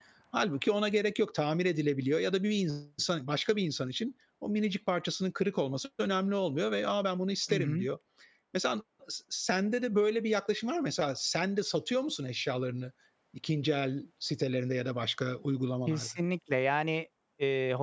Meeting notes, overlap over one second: none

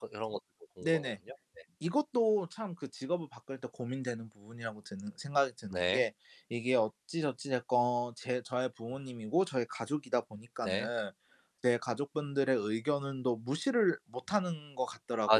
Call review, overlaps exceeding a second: none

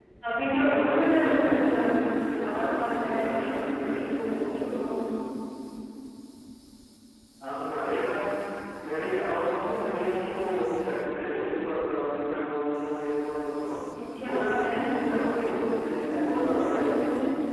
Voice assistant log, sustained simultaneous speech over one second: present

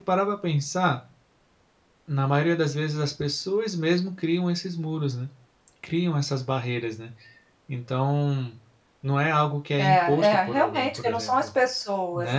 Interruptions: present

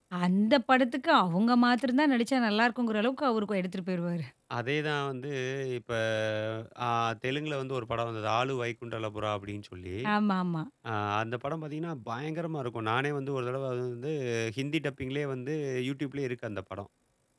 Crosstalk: none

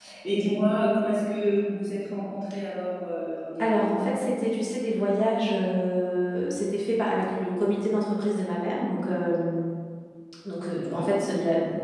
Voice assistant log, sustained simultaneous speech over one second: none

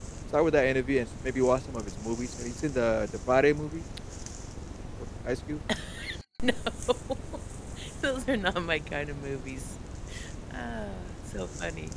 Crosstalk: none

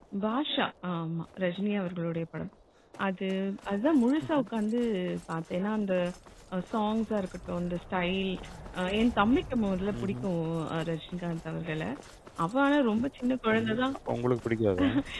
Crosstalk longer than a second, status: none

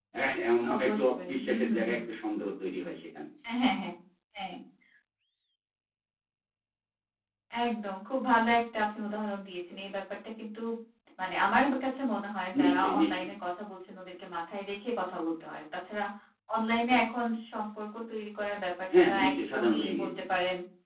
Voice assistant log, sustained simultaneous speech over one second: present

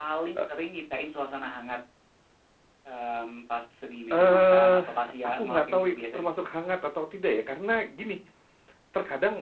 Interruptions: present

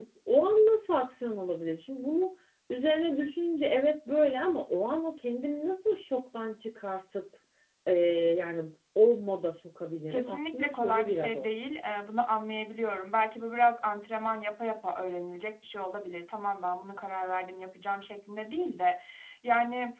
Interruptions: present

